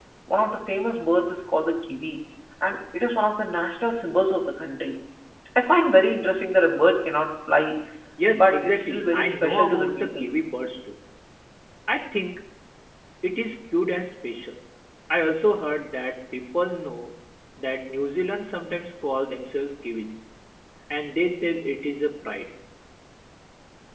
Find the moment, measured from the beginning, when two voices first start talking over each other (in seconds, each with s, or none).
8.3 s